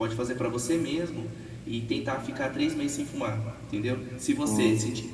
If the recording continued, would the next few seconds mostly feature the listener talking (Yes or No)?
No